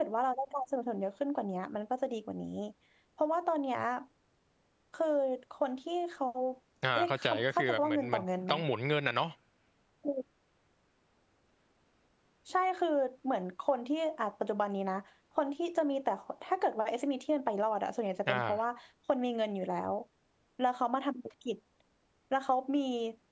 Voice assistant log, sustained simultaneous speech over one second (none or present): present